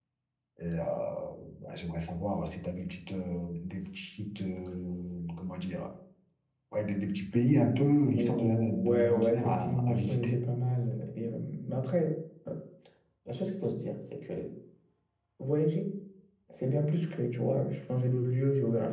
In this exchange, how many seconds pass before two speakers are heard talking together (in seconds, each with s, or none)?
8.1 s